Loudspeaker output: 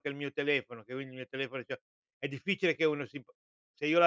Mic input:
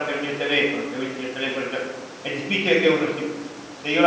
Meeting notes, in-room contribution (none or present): none